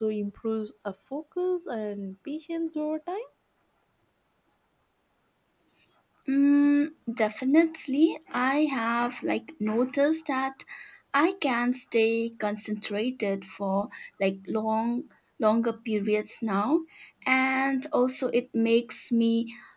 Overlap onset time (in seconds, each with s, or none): none